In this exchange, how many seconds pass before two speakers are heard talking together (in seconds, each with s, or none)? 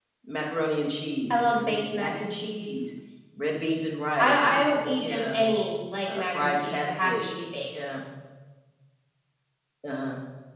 1.3 s